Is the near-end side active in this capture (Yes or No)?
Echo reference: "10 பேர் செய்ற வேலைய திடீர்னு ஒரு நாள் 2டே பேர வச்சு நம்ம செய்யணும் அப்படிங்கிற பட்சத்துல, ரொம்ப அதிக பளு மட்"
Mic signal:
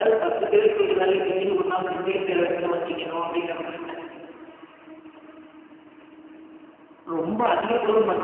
No